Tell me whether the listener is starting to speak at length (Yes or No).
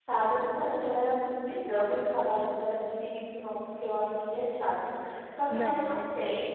No